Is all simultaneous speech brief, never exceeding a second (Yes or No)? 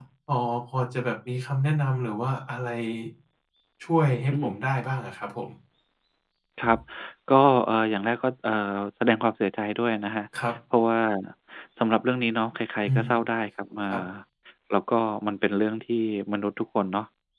Yes